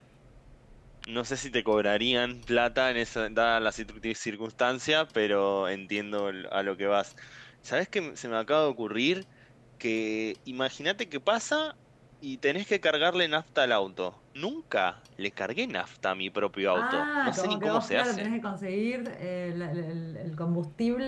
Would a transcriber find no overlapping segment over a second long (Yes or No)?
No